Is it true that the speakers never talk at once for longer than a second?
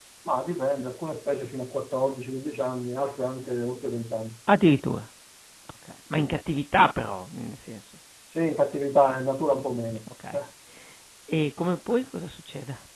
Yes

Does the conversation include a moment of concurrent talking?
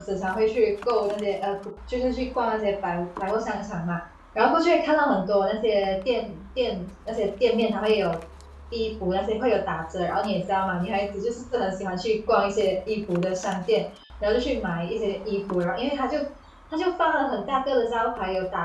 No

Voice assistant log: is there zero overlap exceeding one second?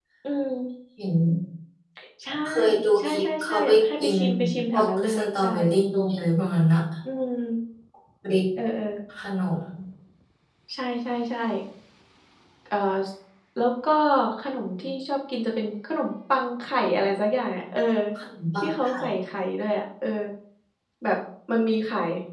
No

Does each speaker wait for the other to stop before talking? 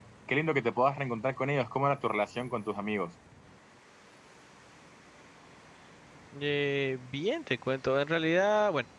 Yes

